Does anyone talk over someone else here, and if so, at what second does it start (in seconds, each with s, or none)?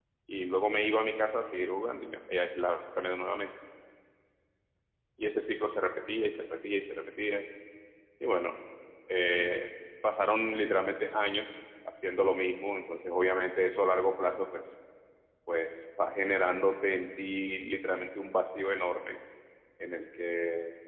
none